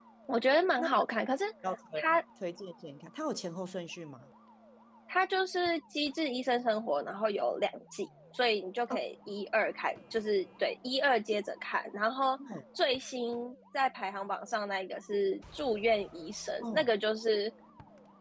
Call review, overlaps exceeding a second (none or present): none